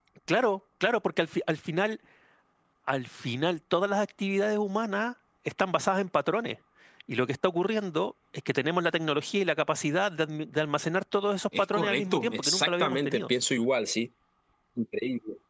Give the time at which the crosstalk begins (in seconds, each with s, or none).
11.5 s